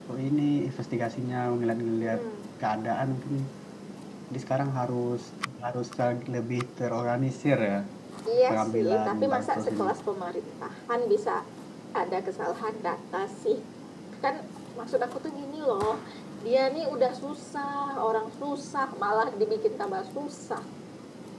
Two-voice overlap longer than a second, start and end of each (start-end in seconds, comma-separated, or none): 8.5-9.8